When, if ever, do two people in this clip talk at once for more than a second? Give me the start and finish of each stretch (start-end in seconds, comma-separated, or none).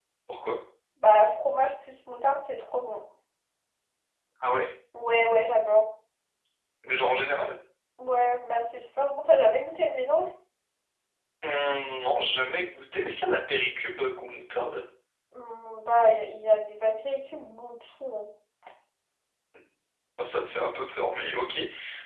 none